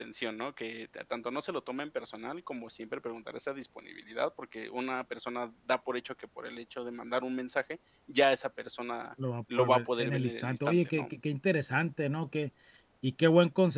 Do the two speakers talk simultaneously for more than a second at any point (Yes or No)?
Yes